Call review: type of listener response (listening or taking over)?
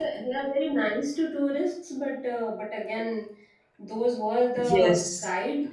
listening